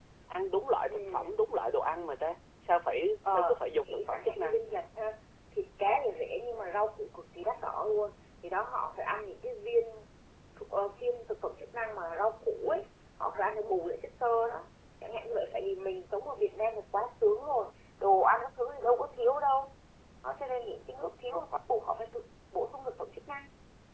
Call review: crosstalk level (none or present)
present